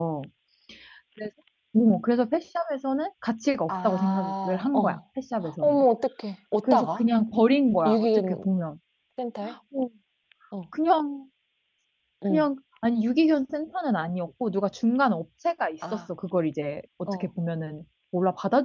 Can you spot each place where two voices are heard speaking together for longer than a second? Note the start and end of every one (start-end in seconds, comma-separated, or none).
3.7-5.0